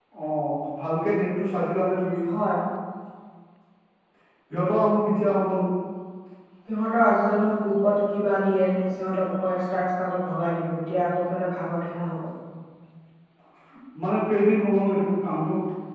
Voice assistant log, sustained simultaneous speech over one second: none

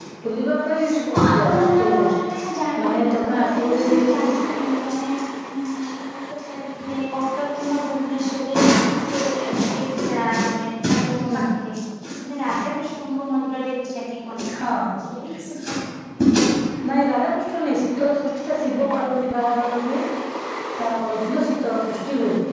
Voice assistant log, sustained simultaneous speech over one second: present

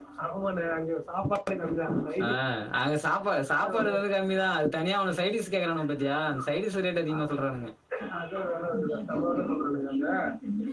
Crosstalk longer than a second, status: none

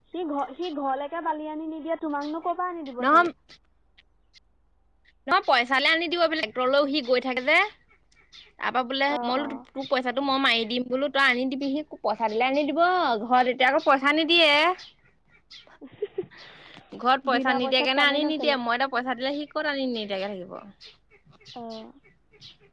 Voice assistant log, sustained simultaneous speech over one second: present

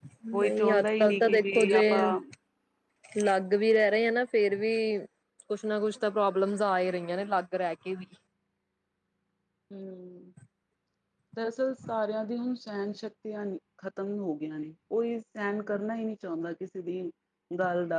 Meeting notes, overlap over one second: present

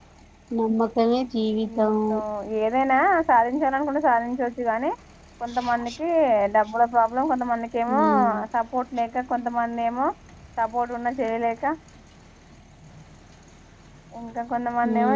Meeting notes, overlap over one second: none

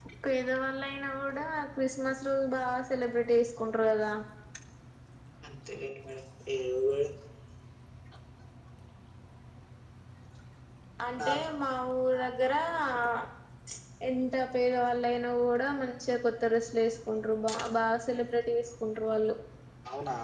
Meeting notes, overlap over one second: none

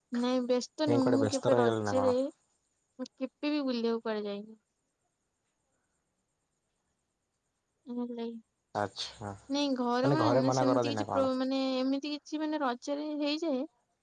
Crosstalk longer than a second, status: present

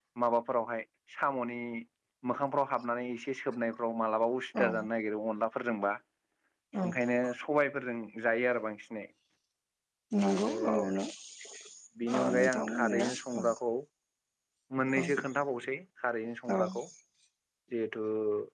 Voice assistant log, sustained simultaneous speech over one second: present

